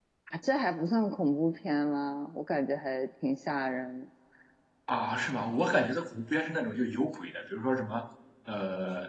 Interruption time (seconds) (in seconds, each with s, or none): none